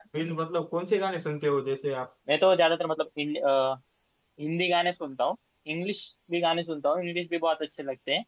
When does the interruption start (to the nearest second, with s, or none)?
none